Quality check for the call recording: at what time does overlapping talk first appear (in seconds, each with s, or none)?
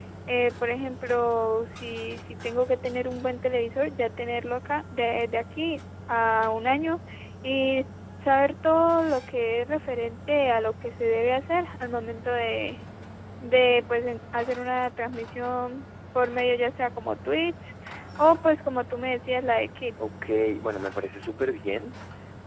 none